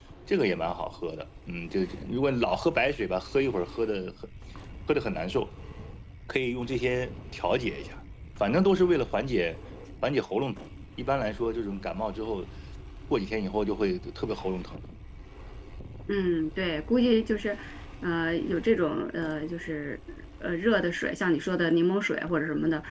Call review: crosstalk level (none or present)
none